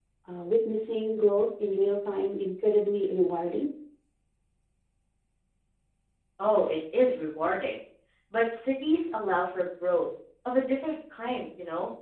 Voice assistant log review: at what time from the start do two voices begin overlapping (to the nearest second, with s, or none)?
none